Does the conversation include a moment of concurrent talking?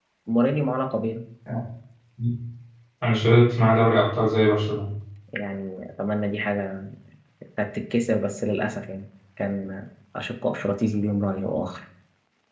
No

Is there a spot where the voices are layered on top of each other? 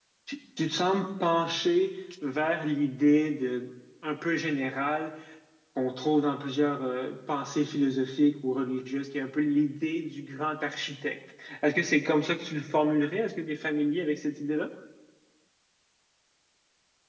No

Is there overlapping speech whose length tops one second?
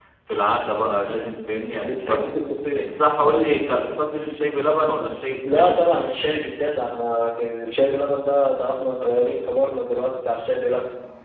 No

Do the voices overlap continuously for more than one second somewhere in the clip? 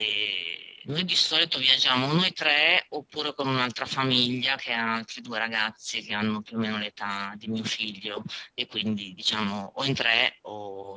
No

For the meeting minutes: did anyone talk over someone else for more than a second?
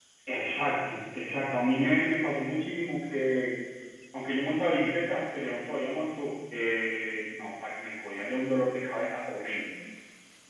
No

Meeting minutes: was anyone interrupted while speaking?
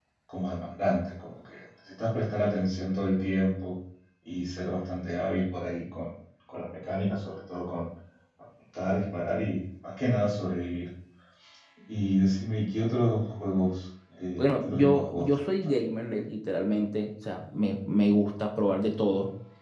Yes, from 14.4 s

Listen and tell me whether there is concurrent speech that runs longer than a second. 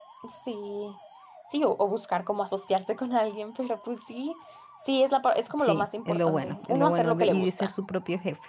Yes, from 5.6 s

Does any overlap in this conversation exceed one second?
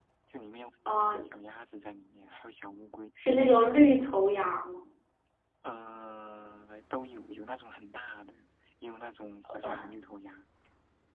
No

